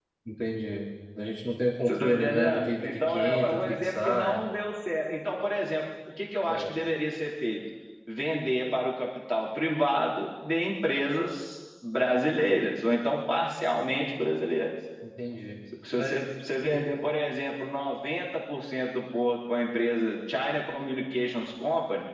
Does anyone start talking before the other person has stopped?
Yes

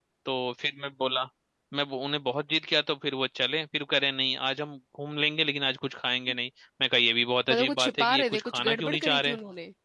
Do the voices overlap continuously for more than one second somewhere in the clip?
Yes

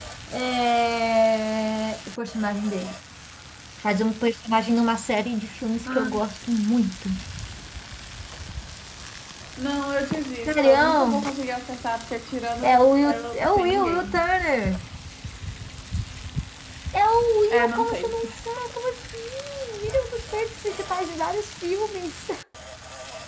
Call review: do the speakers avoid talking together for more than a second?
No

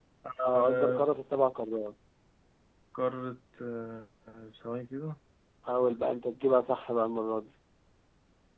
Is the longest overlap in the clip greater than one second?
No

